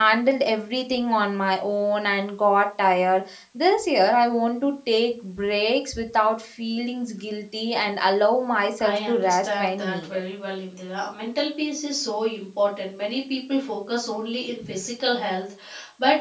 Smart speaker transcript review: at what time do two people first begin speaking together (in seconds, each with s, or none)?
8.8 s